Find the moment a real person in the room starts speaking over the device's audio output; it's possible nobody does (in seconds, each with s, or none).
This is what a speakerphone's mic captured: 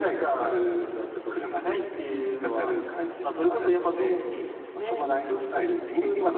0.5 s